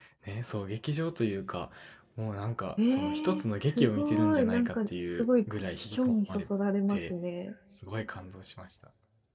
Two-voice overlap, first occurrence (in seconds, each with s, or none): 2.9 s